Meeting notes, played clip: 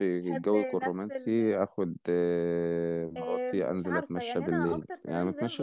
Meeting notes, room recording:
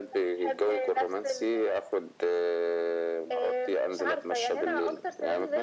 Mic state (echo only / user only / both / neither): echo only